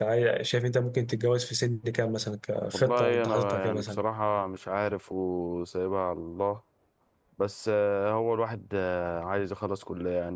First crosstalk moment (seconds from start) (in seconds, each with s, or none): 2.7 s